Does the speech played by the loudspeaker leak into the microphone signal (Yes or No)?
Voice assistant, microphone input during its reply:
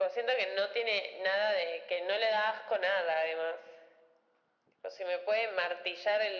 Yes